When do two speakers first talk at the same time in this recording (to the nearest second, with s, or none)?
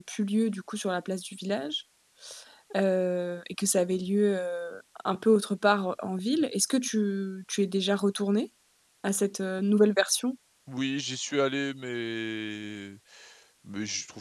none